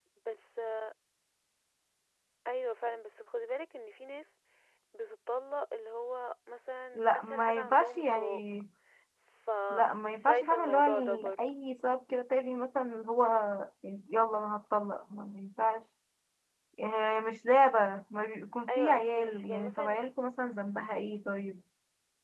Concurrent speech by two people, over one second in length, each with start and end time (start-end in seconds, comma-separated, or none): 7.0-8.4, 9.7-11.4, 18.7-20.0